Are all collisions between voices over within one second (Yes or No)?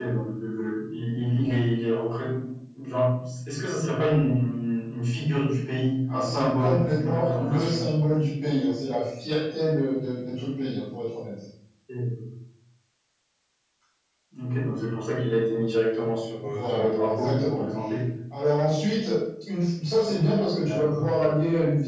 No